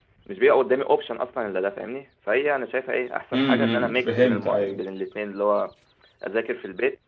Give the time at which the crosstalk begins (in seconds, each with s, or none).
3.3 s